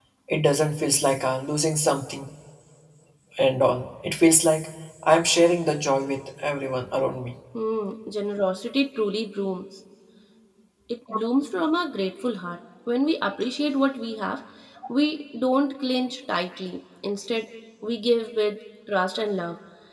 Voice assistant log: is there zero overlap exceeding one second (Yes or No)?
Yes